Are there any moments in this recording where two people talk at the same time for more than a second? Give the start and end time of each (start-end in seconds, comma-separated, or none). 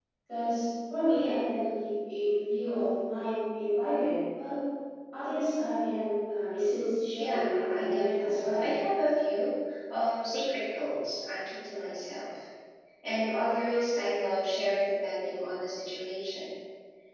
7.2-8.6